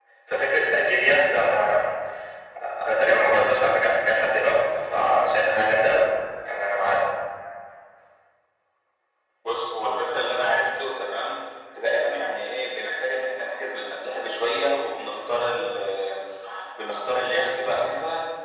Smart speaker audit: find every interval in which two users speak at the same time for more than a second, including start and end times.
none

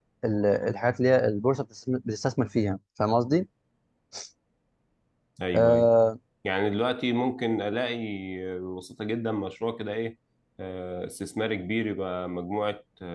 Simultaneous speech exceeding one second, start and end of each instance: none

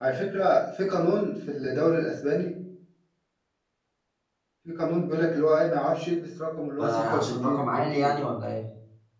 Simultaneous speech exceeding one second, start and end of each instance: 6.8-8.2

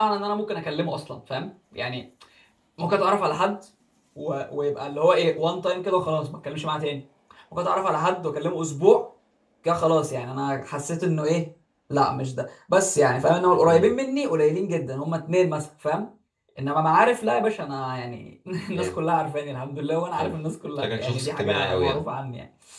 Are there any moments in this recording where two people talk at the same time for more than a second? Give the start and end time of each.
20.8-22.0

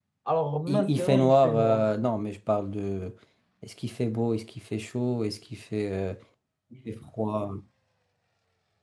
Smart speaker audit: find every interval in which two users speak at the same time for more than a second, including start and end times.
0.7-2.0

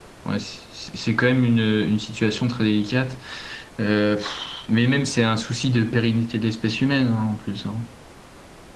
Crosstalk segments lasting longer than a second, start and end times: none

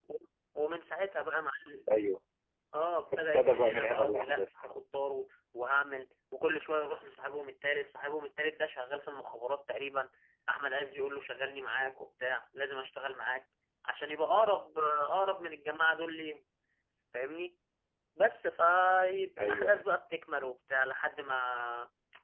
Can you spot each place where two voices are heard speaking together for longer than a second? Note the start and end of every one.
3.2-4.5

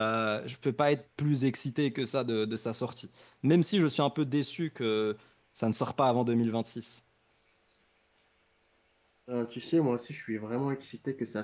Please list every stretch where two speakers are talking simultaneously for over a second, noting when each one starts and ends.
none

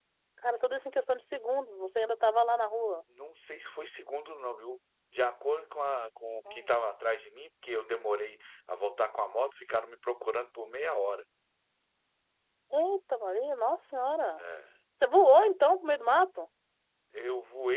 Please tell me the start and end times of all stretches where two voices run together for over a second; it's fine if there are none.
none

